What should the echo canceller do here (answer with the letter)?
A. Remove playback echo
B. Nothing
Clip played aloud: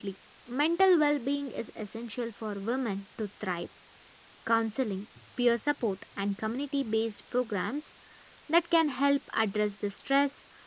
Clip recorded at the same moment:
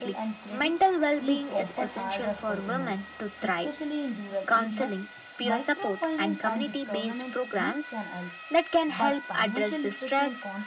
A